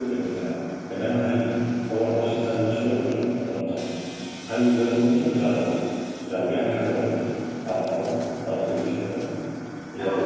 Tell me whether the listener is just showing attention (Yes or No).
Yes